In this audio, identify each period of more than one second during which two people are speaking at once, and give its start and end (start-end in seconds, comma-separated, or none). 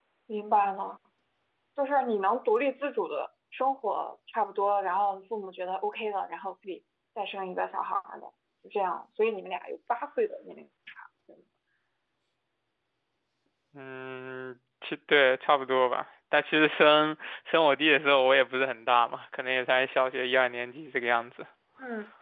none